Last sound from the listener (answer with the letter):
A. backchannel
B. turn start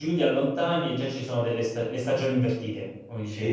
B